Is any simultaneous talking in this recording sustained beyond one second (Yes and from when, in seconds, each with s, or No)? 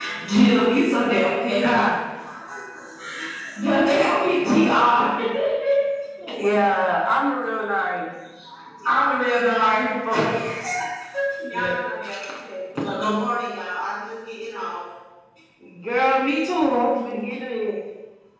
No